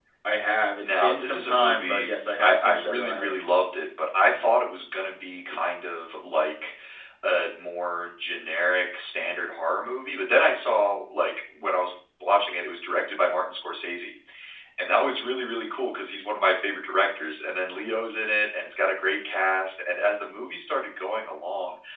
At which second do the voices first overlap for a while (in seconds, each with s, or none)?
0.8 s